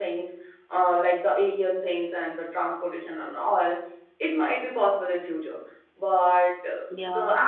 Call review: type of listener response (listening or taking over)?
listening